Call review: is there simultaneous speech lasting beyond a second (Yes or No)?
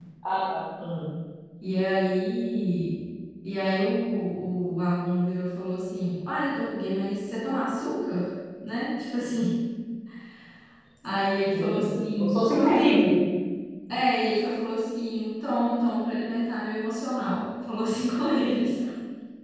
Yes